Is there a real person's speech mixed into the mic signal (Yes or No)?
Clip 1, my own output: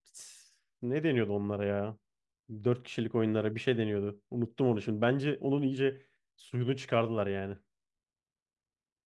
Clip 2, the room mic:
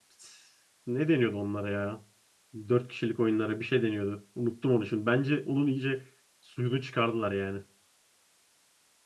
No